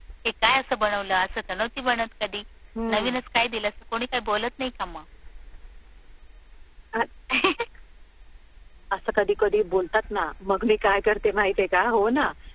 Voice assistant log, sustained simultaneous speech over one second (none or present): none